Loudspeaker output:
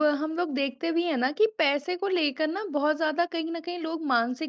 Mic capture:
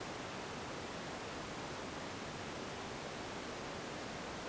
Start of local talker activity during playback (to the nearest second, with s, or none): none